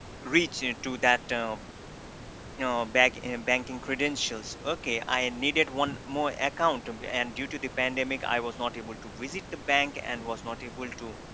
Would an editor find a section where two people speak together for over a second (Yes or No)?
No